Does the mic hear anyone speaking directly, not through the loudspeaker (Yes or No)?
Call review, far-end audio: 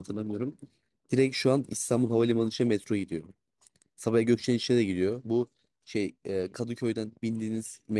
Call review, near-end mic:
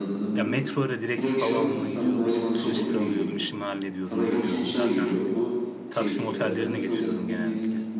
Yes